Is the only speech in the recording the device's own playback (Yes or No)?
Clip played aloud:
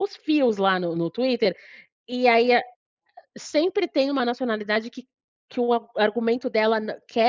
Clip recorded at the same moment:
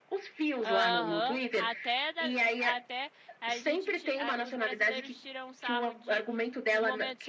No